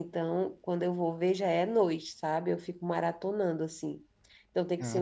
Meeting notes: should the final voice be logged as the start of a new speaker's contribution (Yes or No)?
No